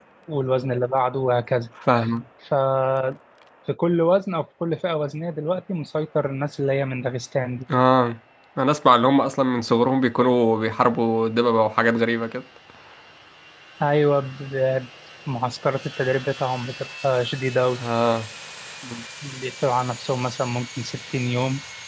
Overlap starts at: none

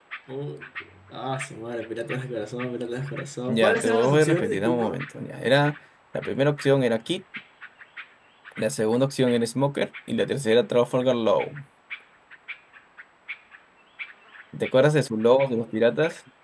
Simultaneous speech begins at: 3.5 s

